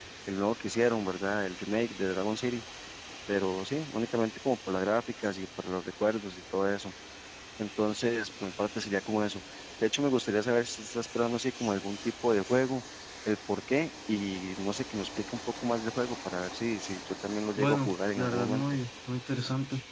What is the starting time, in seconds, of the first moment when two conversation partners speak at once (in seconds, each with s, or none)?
17.6 s